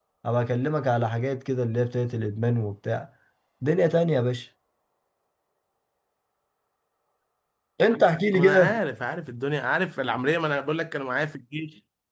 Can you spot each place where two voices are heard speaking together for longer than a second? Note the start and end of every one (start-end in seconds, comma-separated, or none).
none